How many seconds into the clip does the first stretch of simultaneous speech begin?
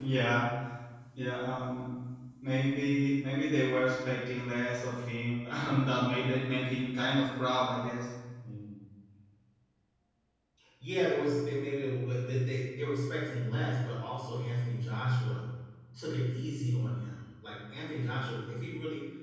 none

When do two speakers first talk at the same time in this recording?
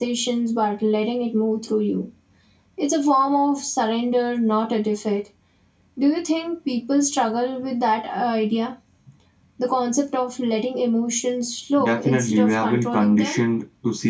12 s

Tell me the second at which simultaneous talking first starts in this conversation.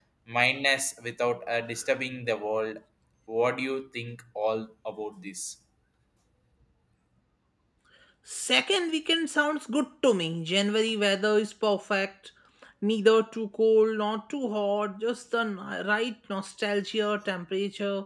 none

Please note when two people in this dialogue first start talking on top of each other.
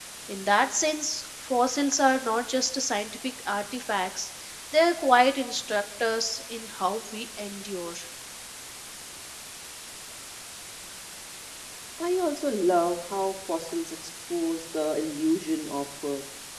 none

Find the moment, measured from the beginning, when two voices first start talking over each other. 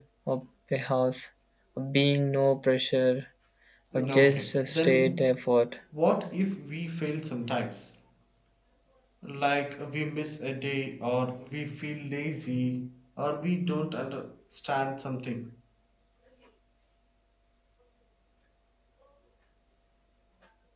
4 s

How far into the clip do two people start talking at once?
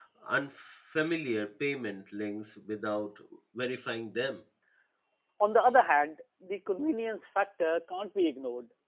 none

